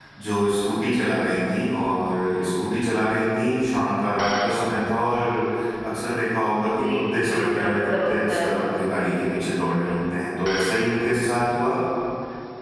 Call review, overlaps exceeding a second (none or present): present